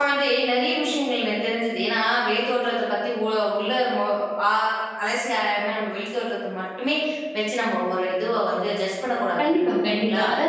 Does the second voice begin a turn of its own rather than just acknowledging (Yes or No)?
Yes